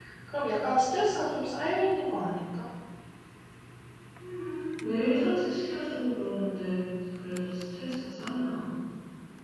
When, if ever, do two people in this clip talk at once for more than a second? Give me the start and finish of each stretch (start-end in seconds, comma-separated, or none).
none